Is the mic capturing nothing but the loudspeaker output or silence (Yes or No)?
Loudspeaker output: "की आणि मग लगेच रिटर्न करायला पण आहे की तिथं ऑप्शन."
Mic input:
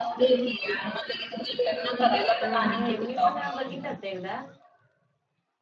No